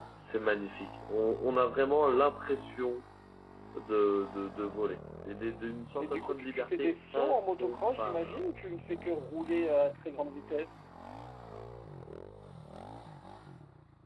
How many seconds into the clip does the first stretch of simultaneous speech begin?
6.0 s

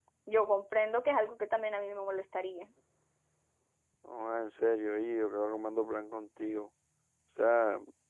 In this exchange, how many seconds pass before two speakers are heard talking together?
none

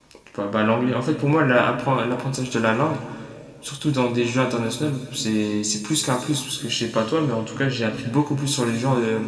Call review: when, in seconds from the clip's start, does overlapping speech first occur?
none

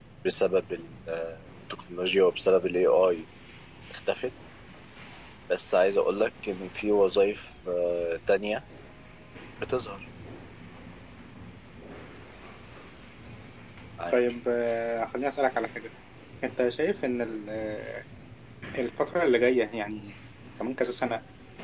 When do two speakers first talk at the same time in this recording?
none

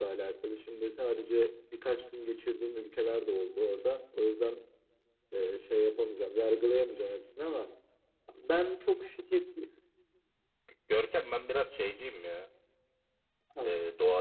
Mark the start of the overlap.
none

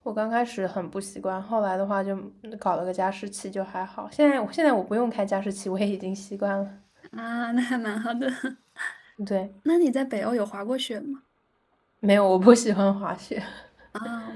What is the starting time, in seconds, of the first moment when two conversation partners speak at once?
none

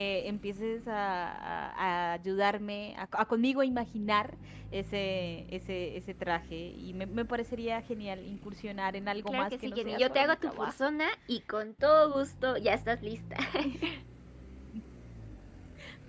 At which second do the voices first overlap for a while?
9.3 s

